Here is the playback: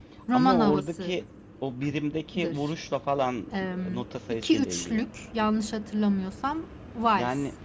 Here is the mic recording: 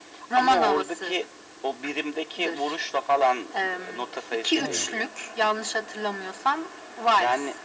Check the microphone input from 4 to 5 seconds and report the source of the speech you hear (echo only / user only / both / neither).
both